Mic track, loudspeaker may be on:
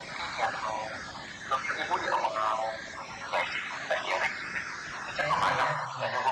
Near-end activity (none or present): present